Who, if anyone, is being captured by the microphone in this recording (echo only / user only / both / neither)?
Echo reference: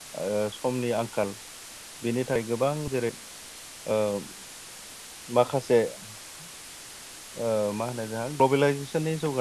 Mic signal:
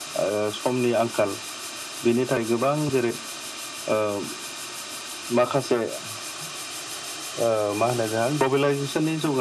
echo only